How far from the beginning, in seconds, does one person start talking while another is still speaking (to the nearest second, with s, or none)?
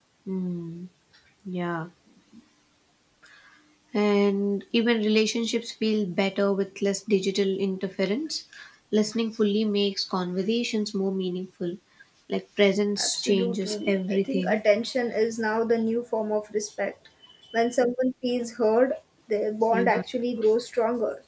13 s